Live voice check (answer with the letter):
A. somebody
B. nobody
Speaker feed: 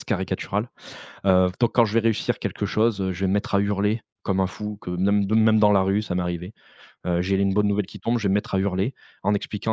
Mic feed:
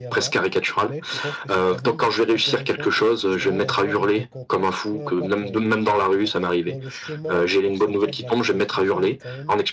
A